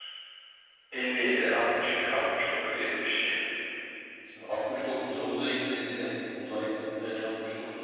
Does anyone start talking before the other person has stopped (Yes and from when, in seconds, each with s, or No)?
No